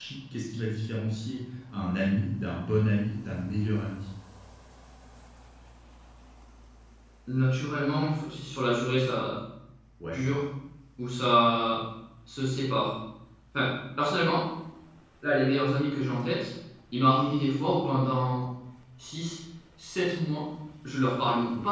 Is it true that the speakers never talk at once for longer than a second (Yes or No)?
Yes